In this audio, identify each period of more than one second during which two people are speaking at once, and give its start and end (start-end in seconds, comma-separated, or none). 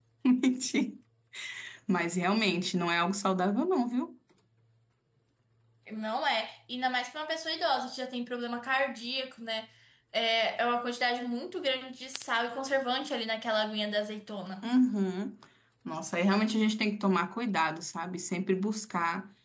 none